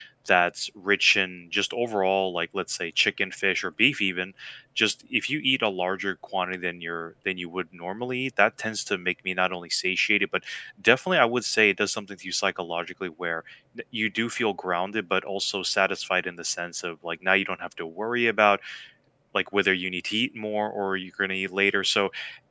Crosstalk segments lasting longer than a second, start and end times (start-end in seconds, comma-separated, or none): none